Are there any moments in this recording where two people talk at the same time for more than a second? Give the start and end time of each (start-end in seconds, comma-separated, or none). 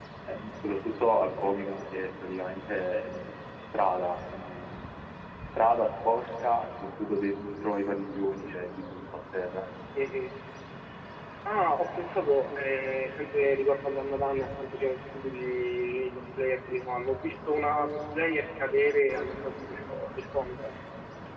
none